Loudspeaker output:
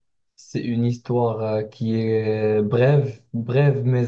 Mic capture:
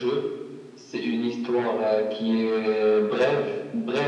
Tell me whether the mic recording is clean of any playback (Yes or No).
No